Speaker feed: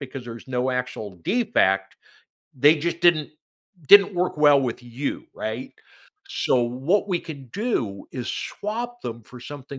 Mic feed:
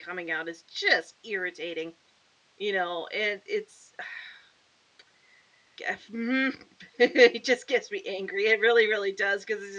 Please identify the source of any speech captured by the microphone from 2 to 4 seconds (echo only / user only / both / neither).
user only